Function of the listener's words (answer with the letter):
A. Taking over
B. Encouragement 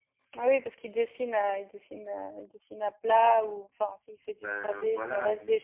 A